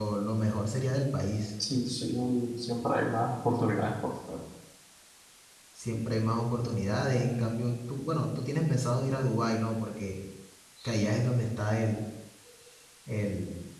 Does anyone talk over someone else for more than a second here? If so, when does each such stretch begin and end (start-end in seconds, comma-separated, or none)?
none